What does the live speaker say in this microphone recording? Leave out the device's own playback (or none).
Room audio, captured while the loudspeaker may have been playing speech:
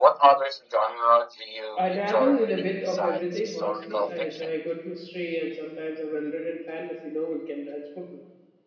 I dabble in a bit of everything, honestly. I enjoy a good mystery, and sometimes a well written fantasy novel can transport me.